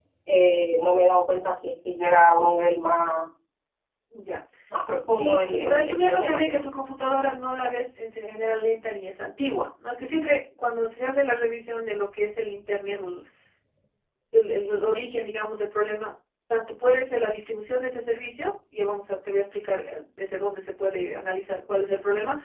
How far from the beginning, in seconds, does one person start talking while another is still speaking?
5.2 s

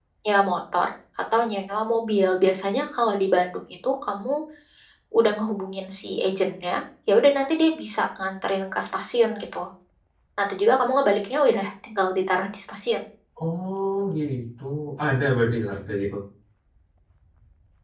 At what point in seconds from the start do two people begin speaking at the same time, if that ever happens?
none

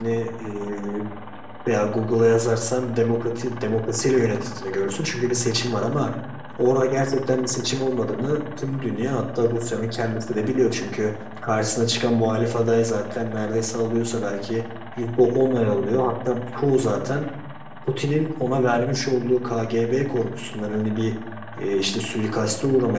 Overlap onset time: none

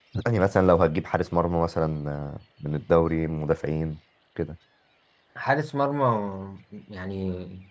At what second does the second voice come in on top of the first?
none

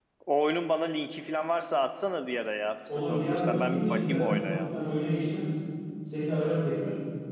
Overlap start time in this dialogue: 2.9 s

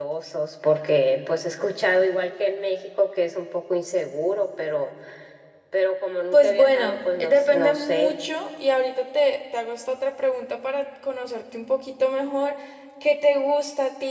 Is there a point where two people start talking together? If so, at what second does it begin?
6.3 s

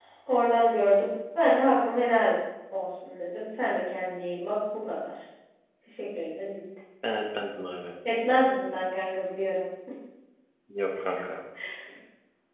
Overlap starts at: none

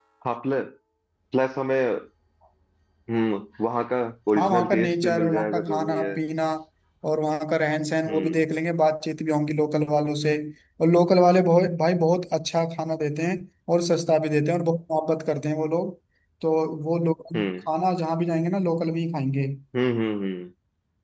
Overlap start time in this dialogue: 4.4 s

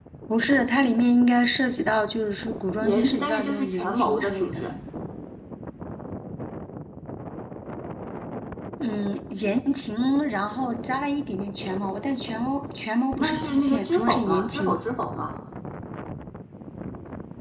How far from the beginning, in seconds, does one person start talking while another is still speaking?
2.8 s

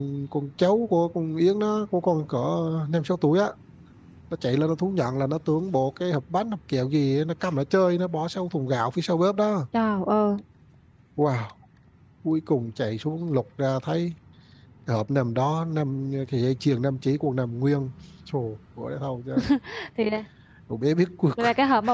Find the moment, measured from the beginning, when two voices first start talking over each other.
none

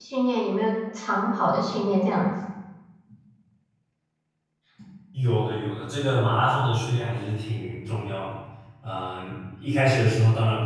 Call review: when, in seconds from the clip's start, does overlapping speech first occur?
none

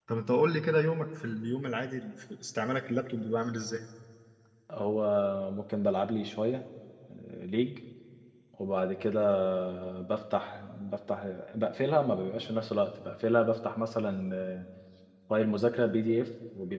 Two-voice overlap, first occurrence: none

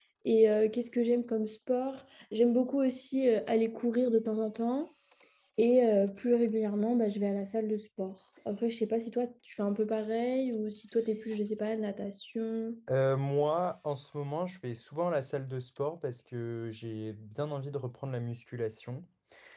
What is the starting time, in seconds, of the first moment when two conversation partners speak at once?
none

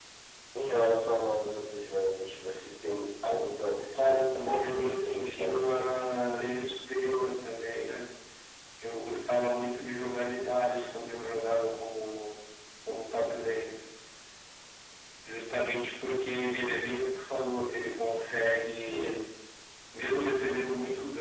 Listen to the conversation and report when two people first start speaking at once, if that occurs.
4.0 s

